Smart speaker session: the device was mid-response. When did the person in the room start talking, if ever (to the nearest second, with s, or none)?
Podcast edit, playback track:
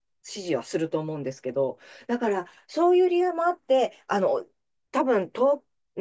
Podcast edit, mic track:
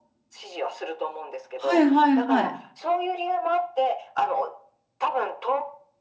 2 s